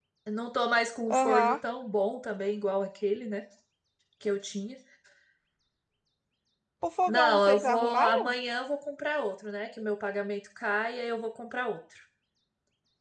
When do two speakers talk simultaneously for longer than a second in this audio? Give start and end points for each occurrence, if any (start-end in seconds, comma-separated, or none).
7.1-8.3